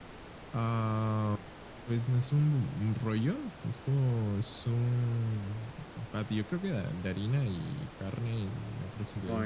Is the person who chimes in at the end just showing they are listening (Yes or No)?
No